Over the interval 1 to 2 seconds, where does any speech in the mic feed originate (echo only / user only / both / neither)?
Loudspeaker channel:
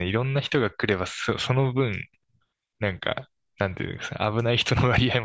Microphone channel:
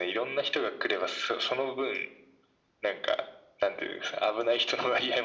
echo only